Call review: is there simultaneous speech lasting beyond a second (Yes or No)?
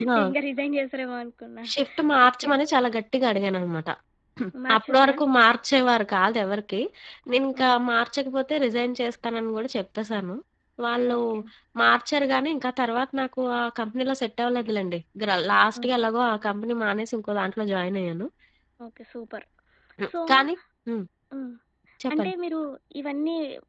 No